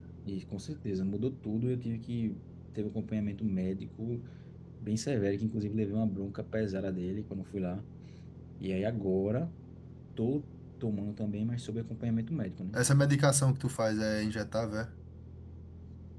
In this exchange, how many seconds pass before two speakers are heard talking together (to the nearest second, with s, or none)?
none